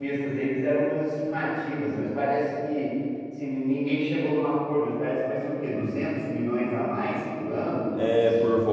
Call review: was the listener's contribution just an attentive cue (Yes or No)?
No